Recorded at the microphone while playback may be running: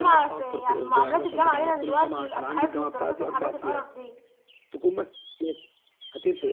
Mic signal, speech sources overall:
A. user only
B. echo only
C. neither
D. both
D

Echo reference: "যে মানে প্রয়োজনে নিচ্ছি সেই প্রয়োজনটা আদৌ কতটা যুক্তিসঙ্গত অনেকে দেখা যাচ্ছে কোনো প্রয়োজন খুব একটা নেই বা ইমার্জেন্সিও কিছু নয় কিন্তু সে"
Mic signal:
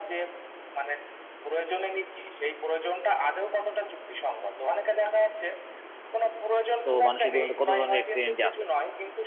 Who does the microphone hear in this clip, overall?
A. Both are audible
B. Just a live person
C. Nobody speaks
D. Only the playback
A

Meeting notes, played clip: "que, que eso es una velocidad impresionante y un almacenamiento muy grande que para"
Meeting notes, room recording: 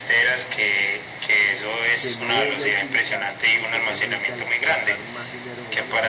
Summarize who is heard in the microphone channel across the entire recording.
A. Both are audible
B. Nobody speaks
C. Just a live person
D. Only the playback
A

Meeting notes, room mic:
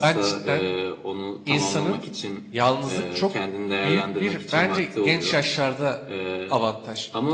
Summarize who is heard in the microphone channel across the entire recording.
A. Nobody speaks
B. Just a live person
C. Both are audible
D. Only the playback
C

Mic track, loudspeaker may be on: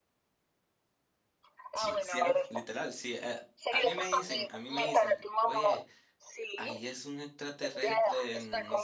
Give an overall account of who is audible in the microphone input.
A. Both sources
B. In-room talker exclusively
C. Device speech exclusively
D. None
A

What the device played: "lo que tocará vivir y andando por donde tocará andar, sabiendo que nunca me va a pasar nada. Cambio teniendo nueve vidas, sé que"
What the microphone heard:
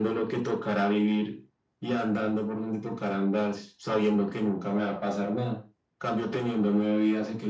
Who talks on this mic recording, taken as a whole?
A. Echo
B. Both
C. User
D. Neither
A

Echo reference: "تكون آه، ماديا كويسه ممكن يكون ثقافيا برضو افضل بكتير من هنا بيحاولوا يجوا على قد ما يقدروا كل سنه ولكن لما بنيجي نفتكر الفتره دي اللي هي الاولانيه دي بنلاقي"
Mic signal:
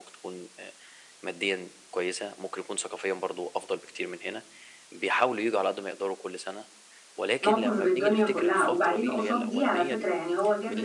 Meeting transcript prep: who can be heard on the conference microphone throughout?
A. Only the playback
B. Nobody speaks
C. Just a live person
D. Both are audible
D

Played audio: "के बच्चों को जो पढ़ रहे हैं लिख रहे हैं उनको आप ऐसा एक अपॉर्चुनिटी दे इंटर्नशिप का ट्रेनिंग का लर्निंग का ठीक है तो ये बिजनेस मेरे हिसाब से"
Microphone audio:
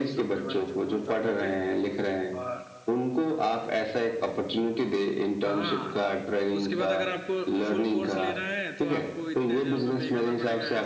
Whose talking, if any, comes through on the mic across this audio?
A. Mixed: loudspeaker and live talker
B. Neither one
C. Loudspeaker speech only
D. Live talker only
A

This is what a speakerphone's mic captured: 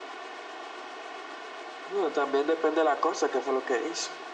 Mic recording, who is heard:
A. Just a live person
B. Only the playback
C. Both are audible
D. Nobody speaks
B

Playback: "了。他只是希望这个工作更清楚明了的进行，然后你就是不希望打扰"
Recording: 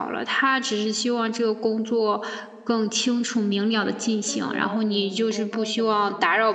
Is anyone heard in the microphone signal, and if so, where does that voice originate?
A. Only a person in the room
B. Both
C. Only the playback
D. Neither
B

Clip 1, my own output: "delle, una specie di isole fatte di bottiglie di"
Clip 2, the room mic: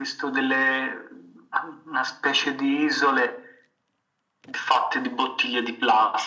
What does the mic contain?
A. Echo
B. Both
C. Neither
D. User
A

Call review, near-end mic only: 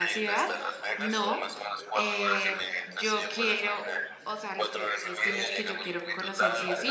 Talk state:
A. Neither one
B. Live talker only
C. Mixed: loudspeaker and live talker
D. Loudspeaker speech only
C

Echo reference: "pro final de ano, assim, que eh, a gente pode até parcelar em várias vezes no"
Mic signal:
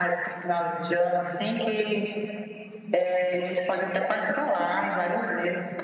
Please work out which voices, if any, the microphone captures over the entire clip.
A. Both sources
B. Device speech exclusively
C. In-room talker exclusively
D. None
B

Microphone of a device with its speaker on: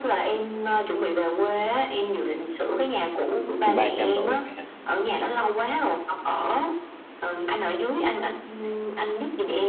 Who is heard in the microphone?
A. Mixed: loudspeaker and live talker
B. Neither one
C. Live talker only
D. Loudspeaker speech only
A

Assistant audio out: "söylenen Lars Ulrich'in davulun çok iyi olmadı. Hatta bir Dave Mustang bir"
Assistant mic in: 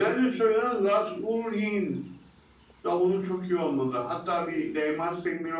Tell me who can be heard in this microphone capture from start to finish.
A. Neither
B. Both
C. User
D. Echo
D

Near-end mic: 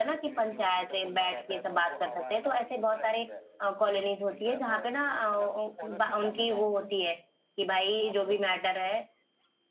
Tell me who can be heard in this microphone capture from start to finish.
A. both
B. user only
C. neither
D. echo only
A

